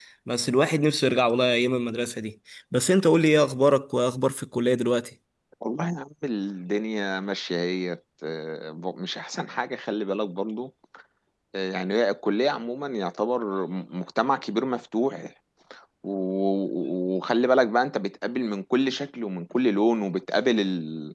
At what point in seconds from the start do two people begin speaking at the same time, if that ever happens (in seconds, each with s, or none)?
none